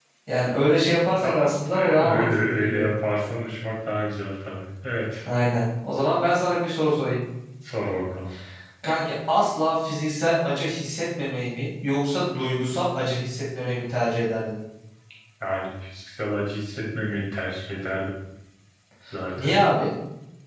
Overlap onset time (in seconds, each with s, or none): 1.2 s